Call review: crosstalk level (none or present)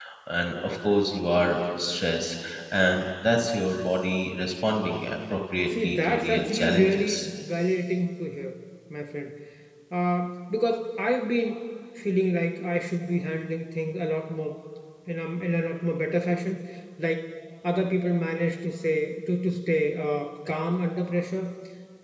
present